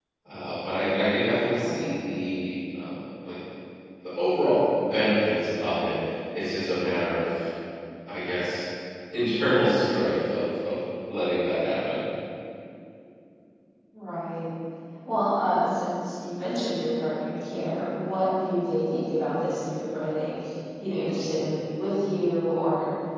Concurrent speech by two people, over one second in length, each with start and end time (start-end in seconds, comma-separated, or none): none